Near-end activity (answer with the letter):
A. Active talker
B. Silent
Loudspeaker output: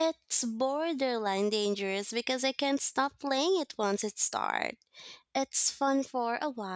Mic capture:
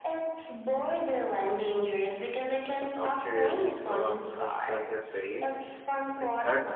A